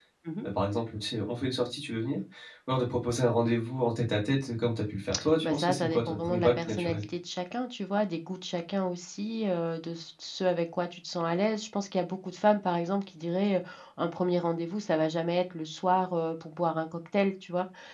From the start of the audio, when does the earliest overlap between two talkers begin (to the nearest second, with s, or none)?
5 s